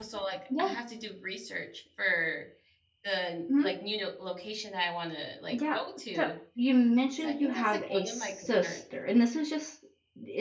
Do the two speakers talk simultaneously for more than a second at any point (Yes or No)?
Yes